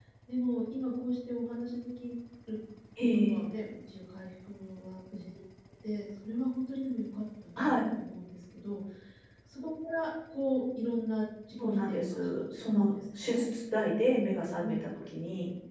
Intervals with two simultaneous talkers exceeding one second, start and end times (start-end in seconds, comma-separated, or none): 11.6-13.4